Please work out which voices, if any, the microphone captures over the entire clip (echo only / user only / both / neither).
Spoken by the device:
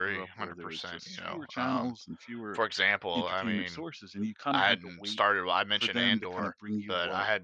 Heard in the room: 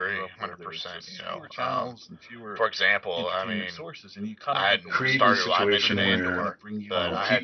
both